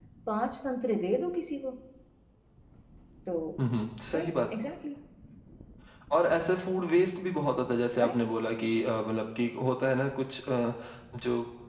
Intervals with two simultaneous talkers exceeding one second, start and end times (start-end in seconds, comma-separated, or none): none